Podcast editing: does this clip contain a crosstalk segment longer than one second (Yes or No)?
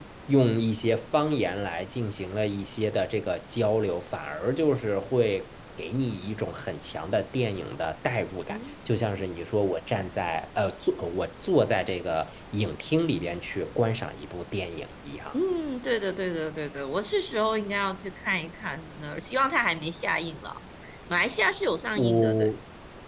No